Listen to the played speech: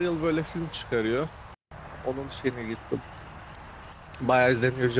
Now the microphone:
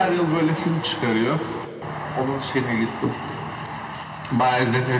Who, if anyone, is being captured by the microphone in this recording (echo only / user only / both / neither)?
echo only